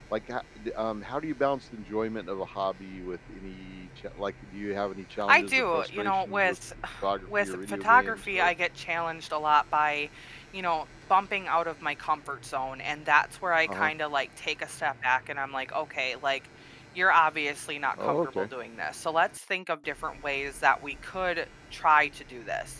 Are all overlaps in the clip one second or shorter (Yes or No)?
No